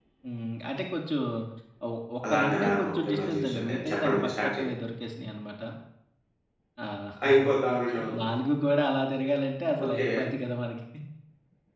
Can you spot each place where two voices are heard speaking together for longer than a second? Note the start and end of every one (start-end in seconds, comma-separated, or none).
2.3-4.7